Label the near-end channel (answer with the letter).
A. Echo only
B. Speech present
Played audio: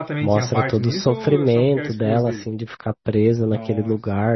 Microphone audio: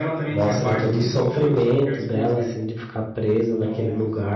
A